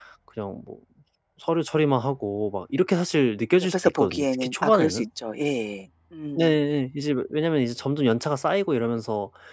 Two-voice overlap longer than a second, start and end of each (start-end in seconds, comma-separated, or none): 3.7-5.0